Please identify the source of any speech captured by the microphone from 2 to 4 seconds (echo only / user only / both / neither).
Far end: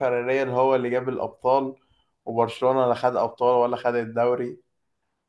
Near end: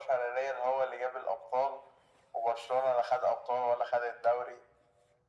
echo only